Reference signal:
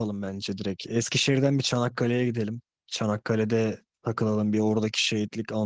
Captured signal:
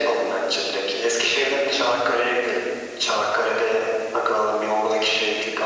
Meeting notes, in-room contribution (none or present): none